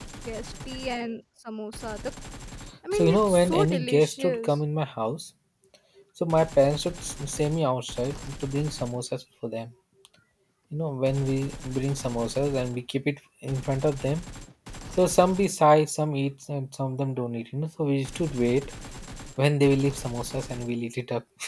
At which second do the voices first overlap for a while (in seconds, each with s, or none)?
2.9 s